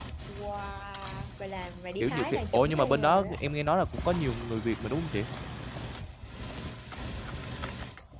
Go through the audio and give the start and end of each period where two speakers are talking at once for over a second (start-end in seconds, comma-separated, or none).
2.0-3.4